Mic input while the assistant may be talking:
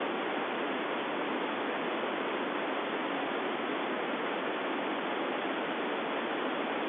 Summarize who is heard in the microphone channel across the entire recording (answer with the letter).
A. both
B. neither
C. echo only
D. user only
B